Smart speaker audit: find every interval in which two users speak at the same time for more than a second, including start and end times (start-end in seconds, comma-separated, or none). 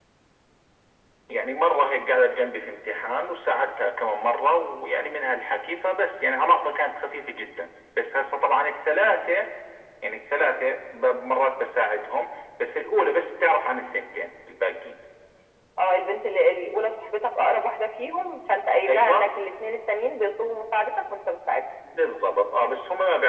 none